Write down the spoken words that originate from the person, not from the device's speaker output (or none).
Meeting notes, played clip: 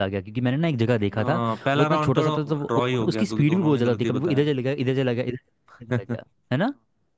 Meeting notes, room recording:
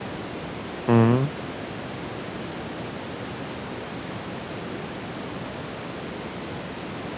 हम्म